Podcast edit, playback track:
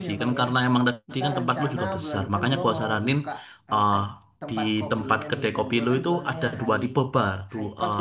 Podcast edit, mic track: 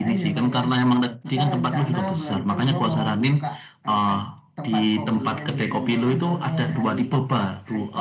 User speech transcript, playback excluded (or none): none